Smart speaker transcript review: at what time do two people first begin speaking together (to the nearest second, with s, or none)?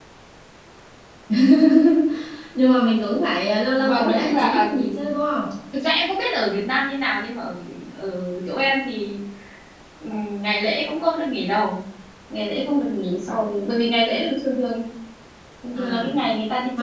4 s